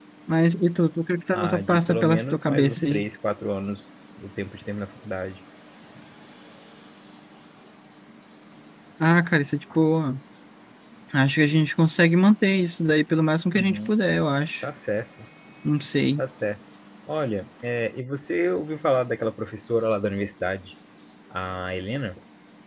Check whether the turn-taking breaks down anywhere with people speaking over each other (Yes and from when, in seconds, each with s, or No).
Yes, from 1.3 s